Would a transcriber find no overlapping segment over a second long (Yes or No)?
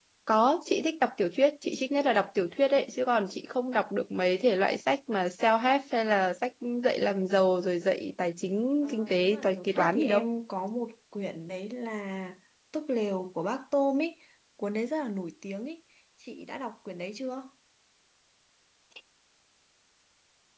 No